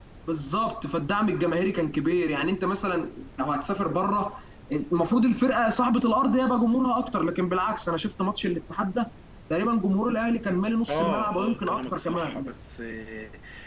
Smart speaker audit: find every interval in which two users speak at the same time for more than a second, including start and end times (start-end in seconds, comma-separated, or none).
10.9-12.5